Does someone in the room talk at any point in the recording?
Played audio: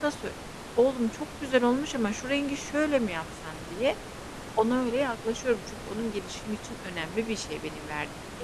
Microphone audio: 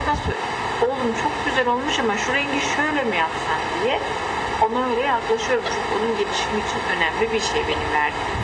No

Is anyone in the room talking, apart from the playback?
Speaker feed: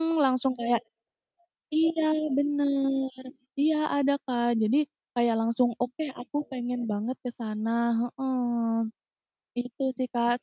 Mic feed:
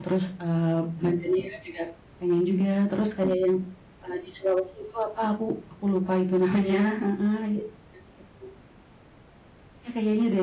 Yes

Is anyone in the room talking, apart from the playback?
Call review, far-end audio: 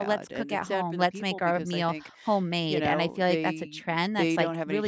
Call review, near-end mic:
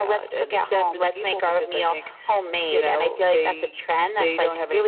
No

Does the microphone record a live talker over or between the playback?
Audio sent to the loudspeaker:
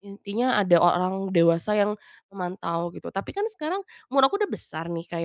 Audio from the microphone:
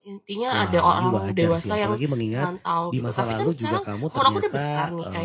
Yes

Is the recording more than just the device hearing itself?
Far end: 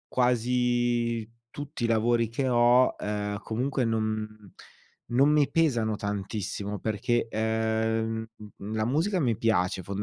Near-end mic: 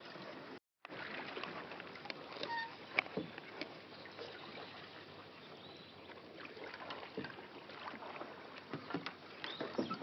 No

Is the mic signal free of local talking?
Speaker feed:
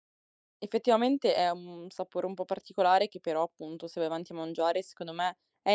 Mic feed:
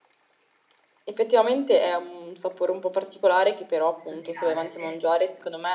No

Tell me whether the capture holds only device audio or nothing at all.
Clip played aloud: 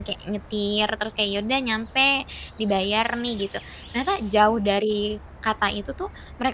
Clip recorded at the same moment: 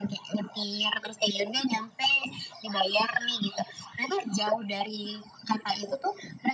Yes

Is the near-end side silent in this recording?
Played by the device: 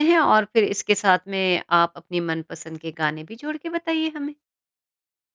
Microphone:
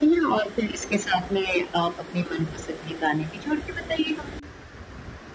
Yes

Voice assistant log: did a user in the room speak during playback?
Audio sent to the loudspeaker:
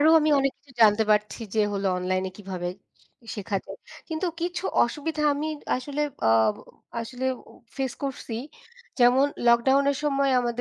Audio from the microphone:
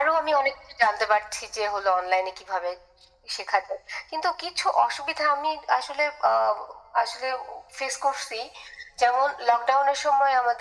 No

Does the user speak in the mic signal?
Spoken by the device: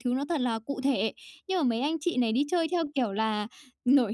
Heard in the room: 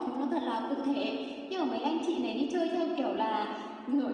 No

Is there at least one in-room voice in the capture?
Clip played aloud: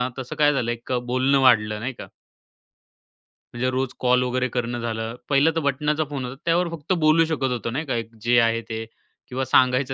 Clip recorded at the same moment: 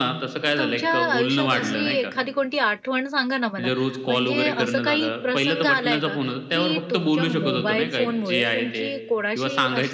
Yes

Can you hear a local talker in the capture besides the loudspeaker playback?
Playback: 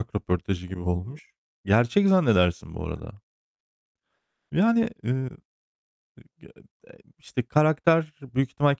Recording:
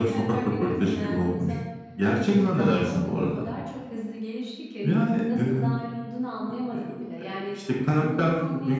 Yes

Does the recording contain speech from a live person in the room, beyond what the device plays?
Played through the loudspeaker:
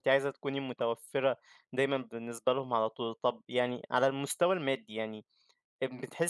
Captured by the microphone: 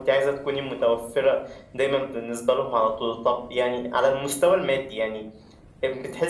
No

